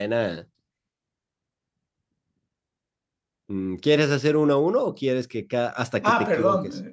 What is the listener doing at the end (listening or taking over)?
taking over